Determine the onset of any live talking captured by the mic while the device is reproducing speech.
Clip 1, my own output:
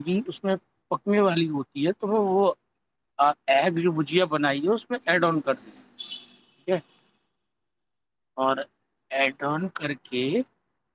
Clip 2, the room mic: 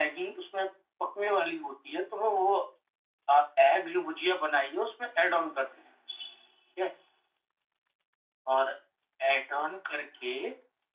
none

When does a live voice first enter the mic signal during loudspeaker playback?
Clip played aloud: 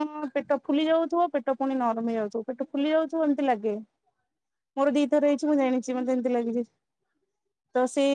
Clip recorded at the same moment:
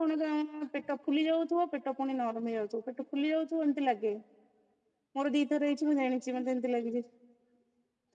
none

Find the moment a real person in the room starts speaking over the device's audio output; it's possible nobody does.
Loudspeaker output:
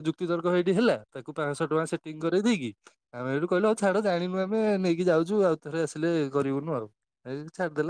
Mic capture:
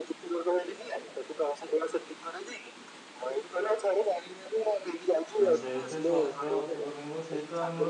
5.4 s

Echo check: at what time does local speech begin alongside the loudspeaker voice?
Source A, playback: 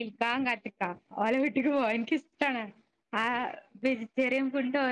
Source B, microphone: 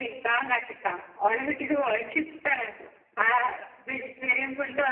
none

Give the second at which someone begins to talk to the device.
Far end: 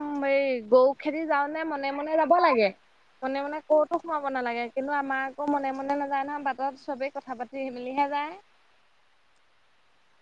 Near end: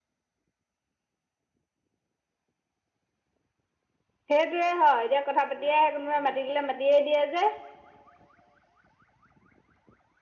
4.3 s

